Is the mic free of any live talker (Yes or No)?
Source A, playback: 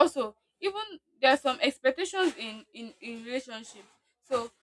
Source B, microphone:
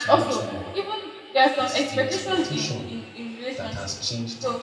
No